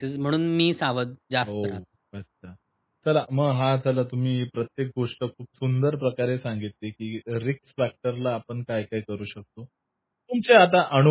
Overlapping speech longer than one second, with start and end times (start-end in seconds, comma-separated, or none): none